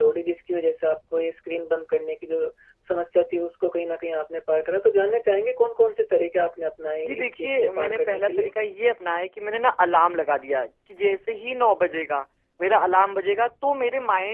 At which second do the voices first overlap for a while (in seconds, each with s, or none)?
7.0 s